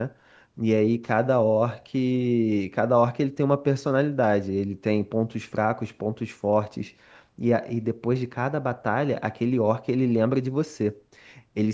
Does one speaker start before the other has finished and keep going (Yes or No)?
No